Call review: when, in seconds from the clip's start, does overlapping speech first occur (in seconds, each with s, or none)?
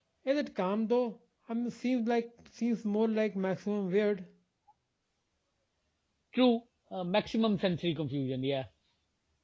none